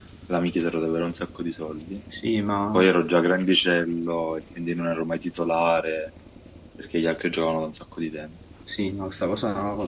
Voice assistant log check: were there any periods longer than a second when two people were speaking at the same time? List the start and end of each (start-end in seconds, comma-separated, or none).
none